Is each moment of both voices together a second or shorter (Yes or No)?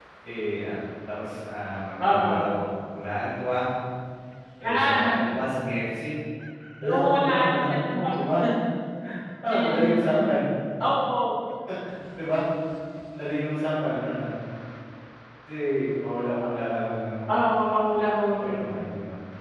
No